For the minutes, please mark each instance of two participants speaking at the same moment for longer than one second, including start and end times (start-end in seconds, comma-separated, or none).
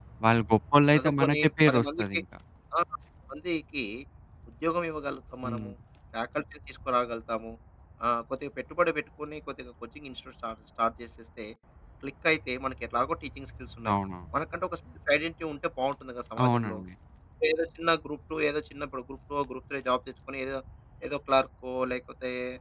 0.9-2.2